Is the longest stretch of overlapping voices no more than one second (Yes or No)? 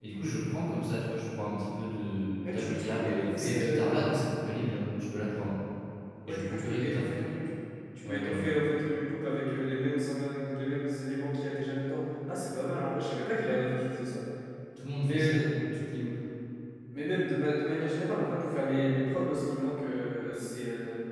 No